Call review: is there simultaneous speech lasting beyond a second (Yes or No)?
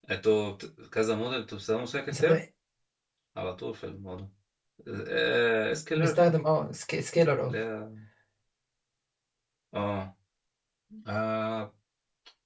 No